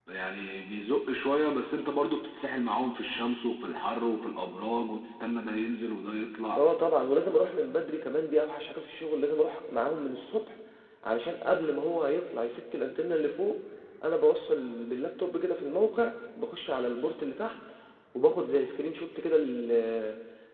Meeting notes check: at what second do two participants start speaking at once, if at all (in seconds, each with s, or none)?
none